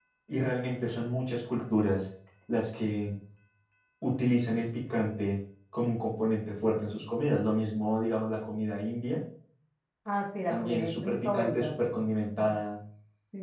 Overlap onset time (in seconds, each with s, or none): 10.5 s